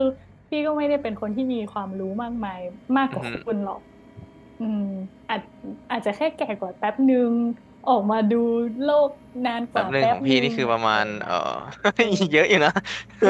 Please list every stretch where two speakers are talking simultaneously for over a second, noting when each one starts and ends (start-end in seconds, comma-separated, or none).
9.8-11.3